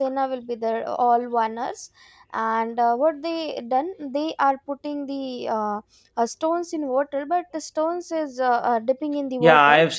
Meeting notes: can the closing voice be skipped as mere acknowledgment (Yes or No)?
No